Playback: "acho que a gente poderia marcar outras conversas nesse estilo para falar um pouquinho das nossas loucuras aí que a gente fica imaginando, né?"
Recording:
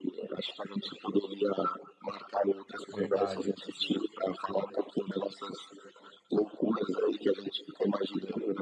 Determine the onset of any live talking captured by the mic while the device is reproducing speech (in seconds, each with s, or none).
2.9 s